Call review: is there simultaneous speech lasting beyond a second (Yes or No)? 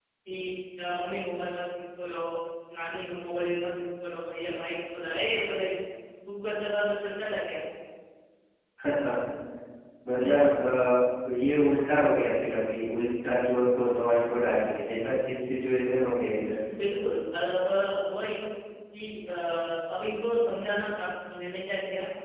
No